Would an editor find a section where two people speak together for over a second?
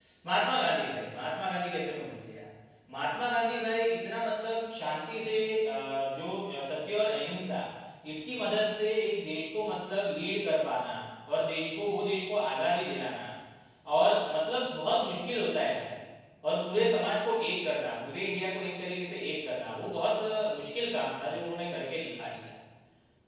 No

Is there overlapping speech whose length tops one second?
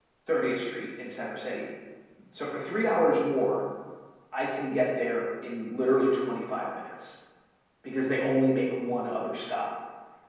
No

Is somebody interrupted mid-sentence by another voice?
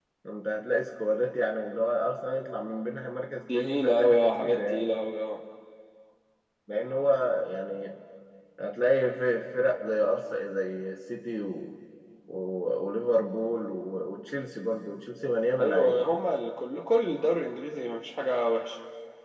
Yes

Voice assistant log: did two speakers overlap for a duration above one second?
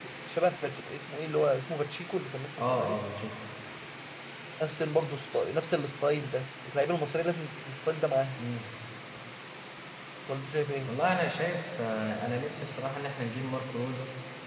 No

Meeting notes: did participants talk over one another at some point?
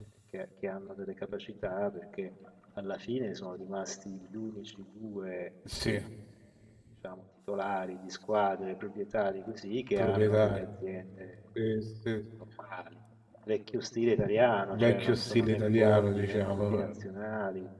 Yes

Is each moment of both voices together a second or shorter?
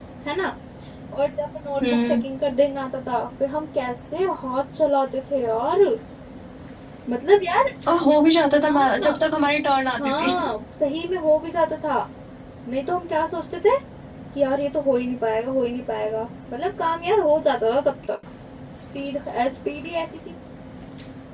Yes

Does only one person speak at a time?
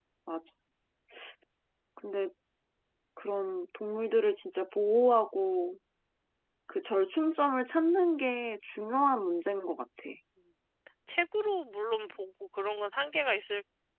Yes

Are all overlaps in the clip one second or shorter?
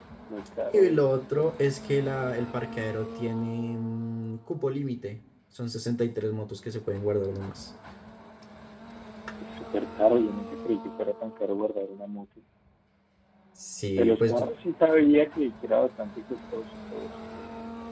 Yes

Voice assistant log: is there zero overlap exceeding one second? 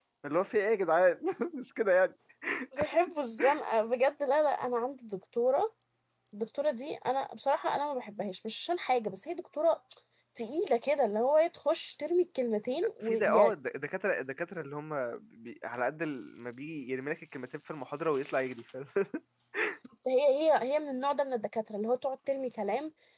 Yes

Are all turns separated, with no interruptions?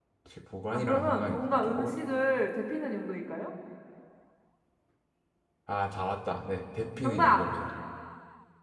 No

